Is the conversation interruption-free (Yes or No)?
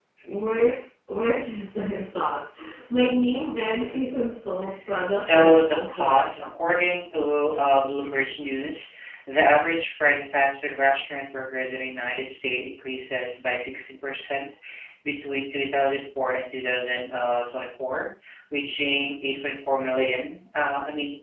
No